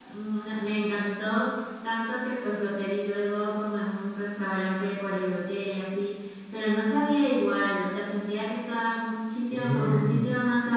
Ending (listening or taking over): listening